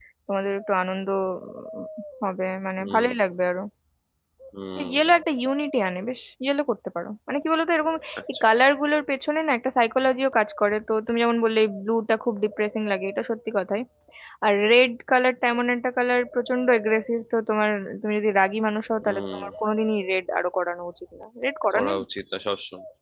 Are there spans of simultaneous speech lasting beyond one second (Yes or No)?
No